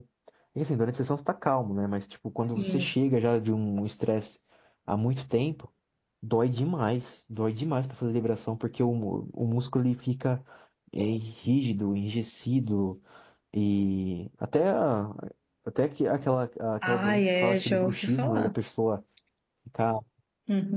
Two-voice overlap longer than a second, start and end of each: 16.8-18.5

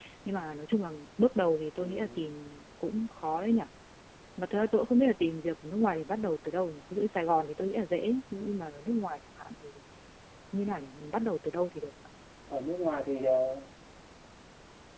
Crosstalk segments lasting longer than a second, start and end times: none

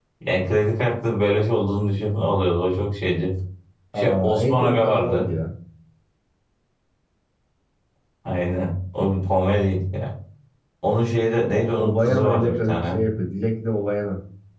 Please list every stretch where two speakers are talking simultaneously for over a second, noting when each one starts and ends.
4.0-5.2, 11.5-13.0

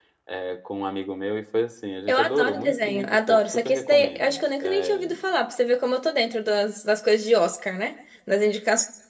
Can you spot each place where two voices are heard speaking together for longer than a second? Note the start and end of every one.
2.1-4.4

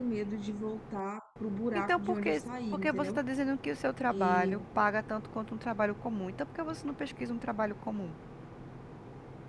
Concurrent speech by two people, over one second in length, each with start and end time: 1.8-3.2

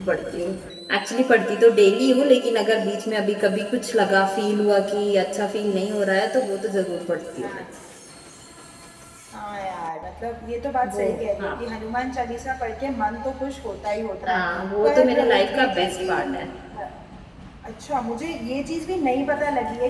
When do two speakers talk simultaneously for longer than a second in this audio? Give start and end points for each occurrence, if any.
14.8-16.4

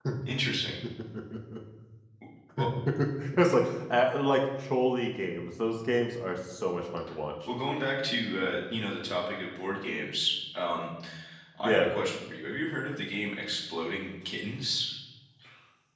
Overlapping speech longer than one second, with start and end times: none

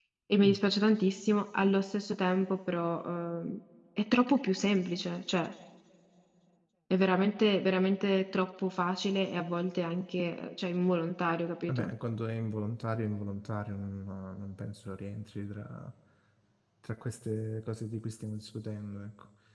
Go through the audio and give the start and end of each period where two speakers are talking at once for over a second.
none

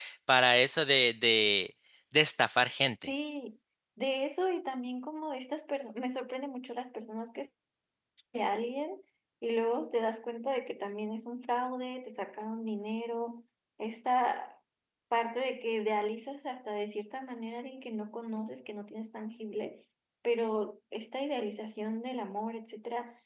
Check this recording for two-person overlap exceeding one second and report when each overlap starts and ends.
none

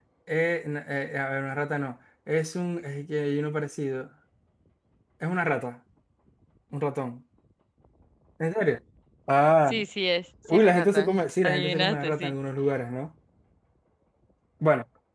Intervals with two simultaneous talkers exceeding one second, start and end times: 10.5-12.3

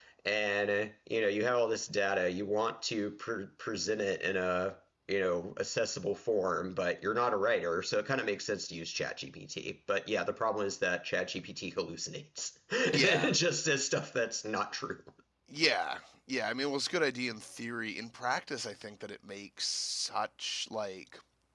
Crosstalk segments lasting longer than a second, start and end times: none

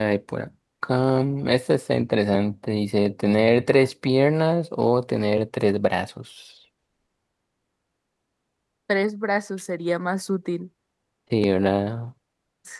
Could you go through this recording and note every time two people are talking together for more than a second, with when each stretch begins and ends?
none

